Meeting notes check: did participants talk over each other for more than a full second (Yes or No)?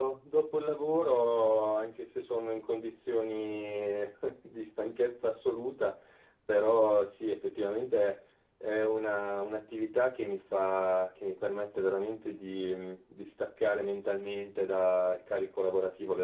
No